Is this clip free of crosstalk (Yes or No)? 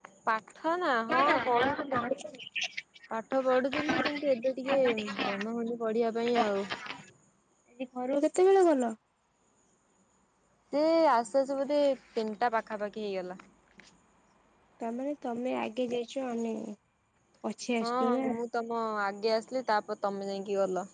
No